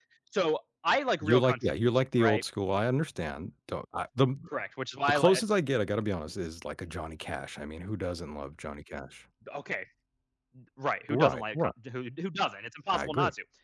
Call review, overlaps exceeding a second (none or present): present